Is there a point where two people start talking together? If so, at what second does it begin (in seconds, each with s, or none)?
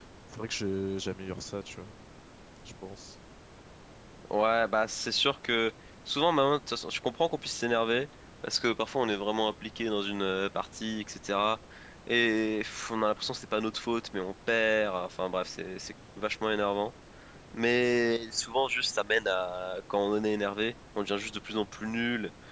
none